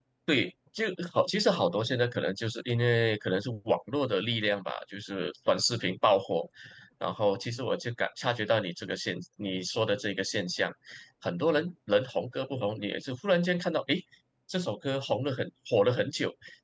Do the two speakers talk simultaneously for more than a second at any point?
No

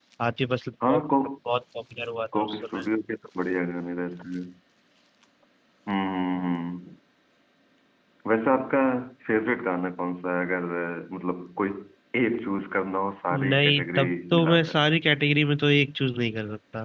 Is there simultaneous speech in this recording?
Yes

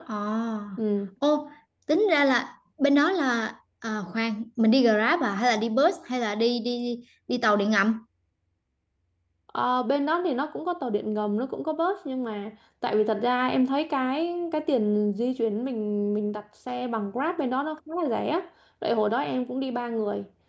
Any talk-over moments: No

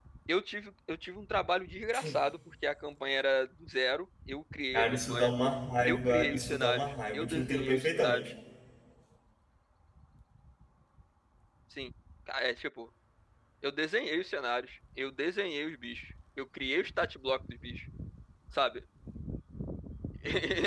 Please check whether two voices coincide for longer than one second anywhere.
Yes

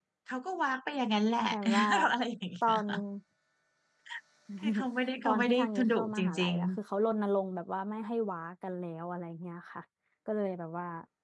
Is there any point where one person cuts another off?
Yes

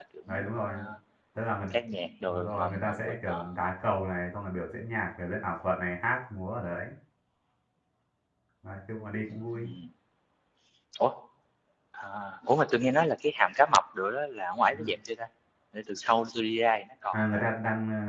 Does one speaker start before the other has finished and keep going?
Yes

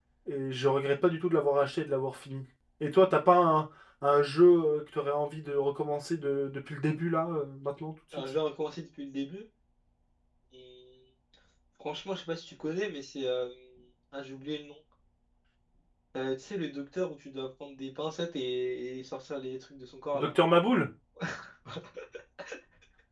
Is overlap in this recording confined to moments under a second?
Yes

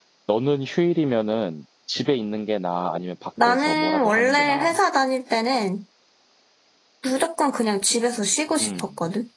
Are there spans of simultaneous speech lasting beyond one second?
Yes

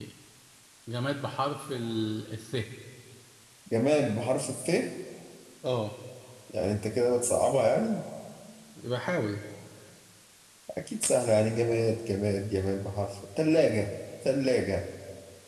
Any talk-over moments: No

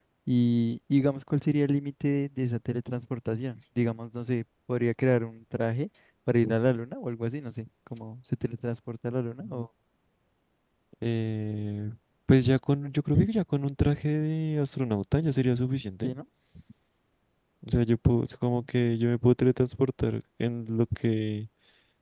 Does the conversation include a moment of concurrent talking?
No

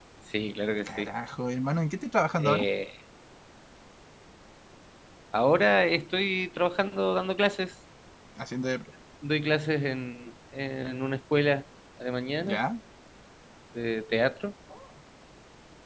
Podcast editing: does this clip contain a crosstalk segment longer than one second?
No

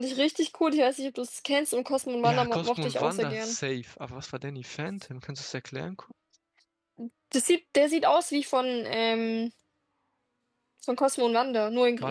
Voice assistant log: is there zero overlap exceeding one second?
No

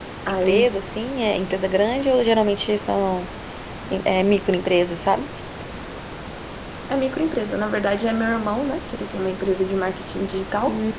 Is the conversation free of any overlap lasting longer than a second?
Yes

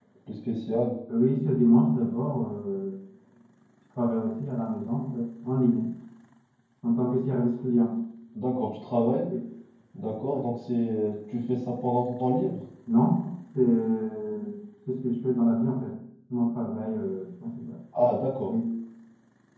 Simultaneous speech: No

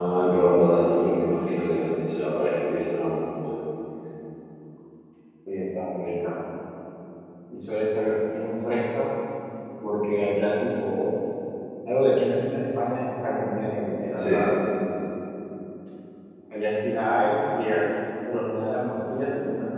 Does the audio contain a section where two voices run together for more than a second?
No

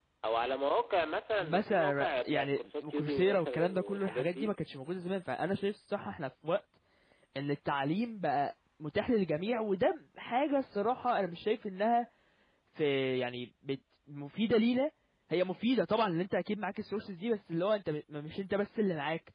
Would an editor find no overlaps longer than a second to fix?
No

